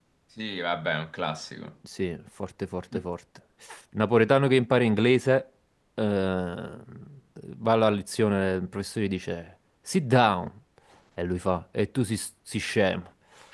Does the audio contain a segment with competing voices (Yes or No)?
No